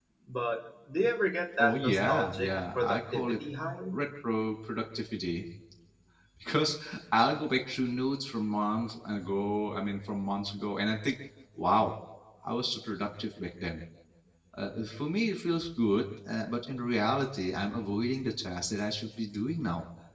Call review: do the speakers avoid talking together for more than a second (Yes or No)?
No